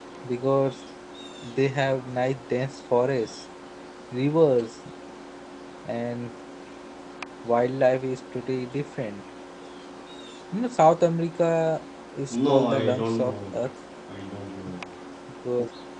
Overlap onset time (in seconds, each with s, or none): 12.3 s